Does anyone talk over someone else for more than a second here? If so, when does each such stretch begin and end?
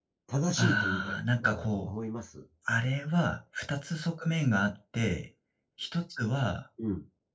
0.6-1.9

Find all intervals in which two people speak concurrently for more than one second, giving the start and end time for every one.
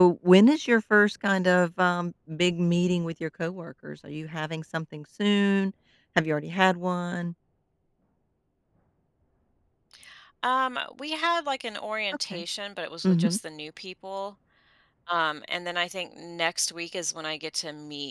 none

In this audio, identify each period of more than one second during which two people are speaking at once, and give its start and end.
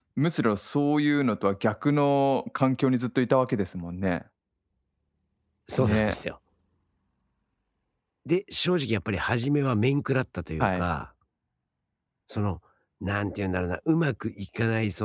none

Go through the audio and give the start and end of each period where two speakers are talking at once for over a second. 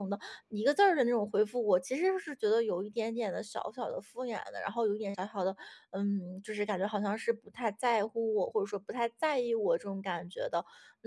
none

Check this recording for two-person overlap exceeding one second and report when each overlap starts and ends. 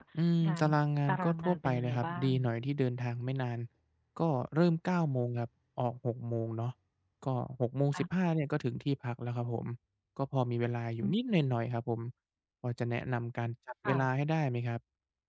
1.1-2.3

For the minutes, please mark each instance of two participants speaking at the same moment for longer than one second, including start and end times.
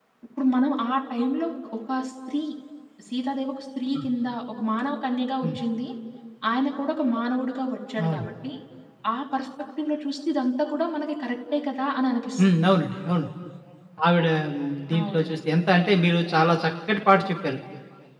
none

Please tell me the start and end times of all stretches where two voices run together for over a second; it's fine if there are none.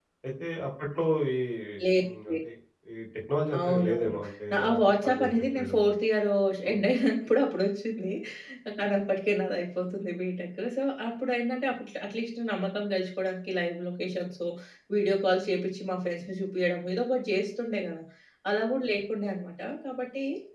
3.6-5.9

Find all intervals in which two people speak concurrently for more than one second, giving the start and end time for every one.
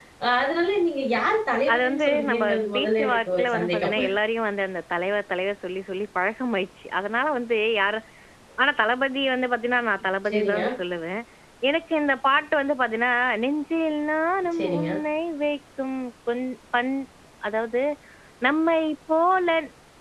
1.7-3.9

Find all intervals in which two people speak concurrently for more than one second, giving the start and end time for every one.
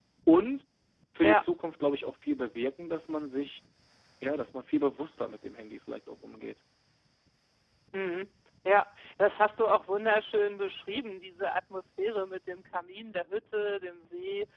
none

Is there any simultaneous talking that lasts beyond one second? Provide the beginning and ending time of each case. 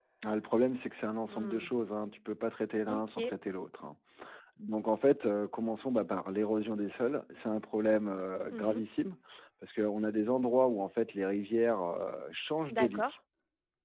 none

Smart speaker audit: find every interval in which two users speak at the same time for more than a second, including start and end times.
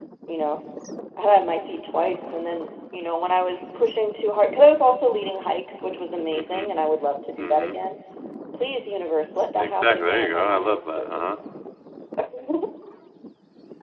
9.6-11.3

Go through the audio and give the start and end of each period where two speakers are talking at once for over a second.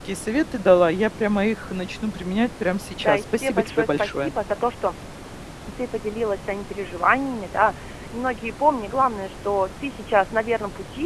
3.0-4.3

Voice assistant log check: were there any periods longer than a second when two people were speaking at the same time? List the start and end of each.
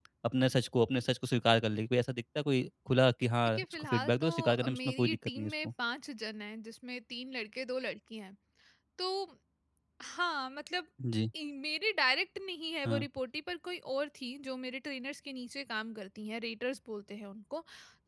3.6-5.7

